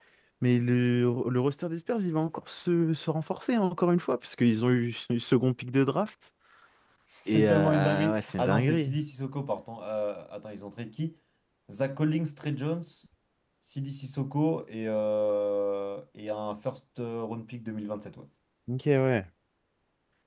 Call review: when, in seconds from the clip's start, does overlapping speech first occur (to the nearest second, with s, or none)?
7 s